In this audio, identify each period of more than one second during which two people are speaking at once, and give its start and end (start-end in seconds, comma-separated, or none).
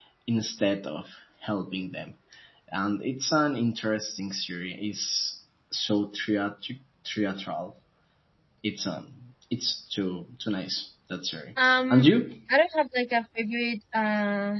none